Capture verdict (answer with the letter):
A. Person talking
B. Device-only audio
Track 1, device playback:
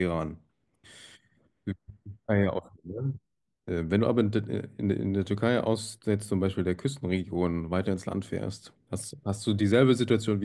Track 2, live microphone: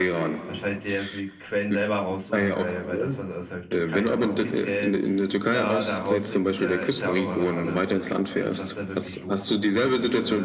A